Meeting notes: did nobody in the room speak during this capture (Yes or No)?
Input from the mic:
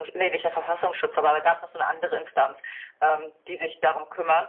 Yes